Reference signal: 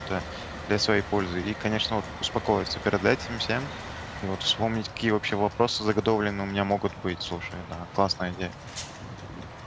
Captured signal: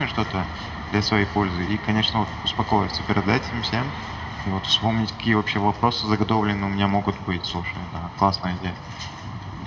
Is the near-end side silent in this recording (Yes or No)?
Yes